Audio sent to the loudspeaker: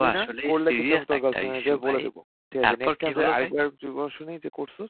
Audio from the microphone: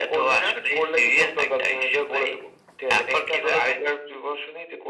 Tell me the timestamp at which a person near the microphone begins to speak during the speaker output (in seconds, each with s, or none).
none